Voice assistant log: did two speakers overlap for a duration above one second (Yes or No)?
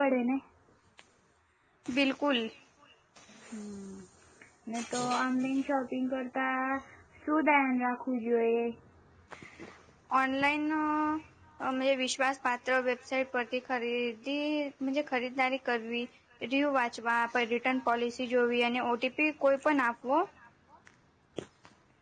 No